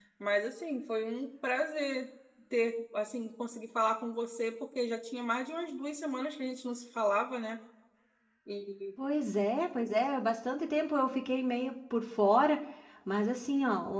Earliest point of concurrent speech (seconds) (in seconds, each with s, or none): none